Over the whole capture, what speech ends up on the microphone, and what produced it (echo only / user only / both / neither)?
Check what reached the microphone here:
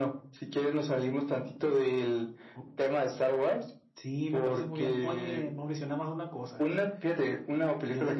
echo only